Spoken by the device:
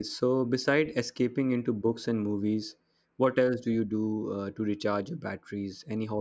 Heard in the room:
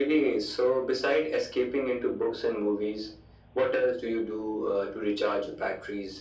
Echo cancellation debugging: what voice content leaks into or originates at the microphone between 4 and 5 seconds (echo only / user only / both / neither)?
echo only